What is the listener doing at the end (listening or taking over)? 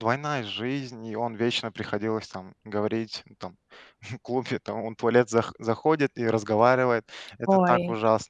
listening